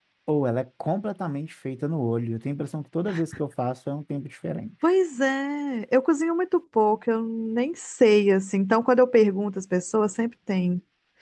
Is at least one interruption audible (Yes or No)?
No